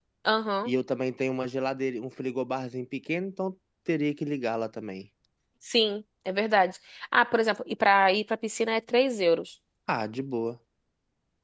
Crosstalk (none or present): none